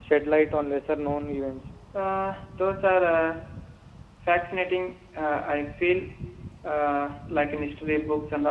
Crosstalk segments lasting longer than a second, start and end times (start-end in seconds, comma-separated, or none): none